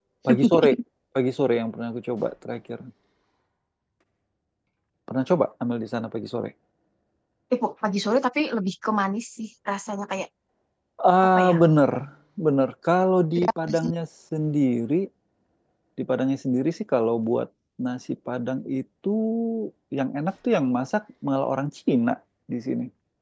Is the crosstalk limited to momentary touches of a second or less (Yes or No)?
Yes